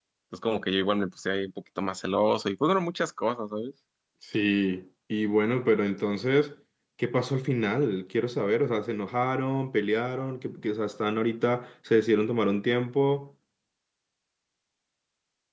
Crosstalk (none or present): none